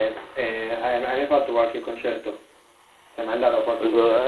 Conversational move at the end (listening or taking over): taking over